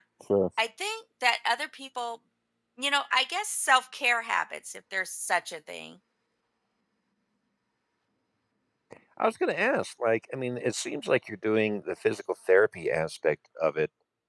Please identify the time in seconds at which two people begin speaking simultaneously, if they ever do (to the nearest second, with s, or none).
none